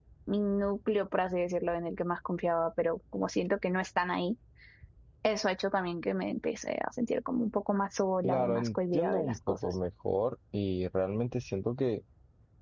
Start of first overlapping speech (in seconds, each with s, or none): 8.2 s